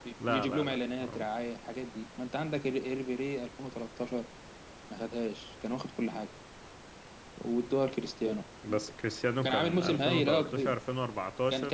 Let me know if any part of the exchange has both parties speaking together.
Yes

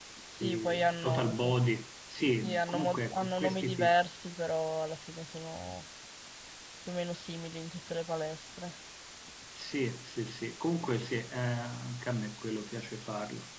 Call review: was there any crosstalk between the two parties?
Yes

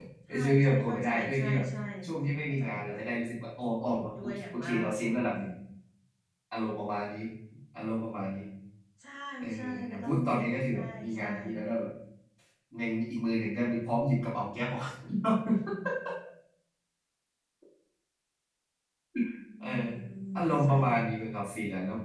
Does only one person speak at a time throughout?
No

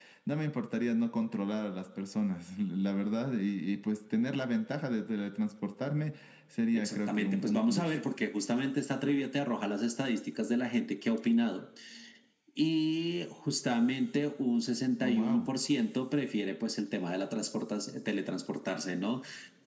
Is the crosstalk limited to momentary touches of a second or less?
No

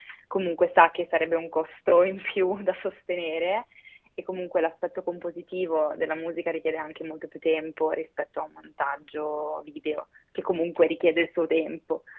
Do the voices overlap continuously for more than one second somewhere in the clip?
No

